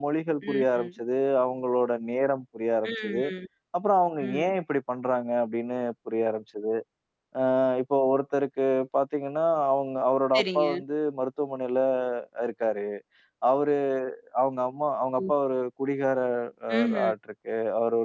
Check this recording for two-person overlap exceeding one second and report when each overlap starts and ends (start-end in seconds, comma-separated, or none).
none